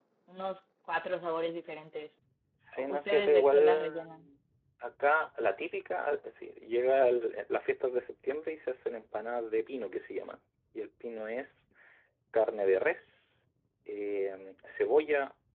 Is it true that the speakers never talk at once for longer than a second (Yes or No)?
No